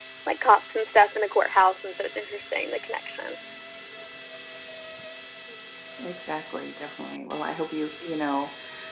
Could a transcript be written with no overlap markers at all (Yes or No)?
Yes